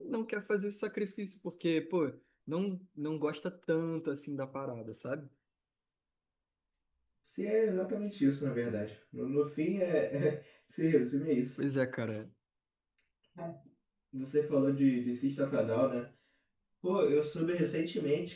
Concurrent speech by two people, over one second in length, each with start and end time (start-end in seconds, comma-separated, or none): none